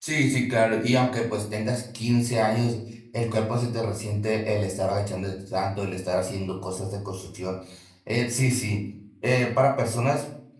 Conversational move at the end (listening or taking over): listening